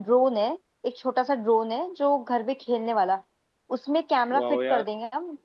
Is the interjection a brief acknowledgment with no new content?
Yes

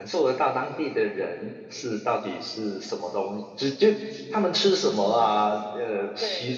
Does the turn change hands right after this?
No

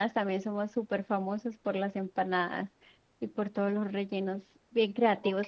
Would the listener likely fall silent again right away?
Yes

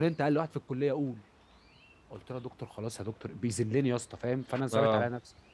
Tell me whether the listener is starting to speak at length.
No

